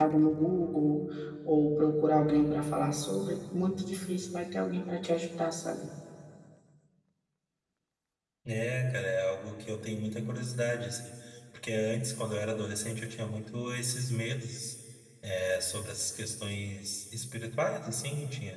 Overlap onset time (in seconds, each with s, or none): none